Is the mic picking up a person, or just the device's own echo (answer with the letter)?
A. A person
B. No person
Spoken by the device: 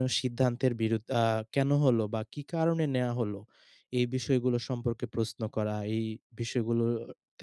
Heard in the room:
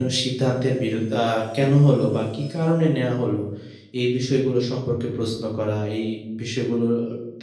B